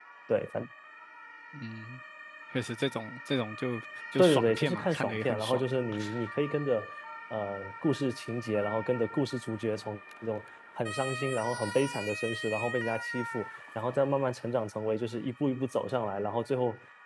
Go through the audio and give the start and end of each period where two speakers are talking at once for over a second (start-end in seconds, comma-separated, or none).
4.2-5.6